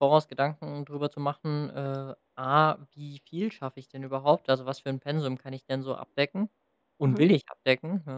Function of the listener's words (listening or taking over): listening